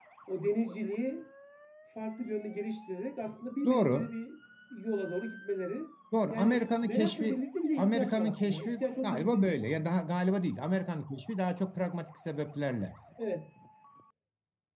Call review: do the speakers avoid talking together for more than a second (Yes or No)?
No